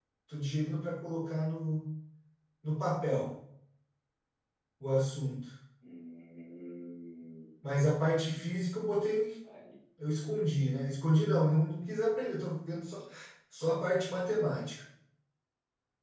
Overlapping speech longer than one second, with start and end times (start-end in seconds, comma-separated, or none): none